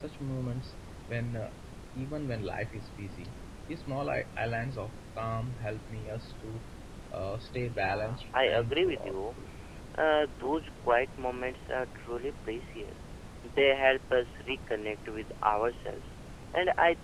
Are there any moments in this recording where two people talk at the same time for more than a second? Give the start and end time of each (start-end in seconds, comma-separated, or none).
7.6-9.2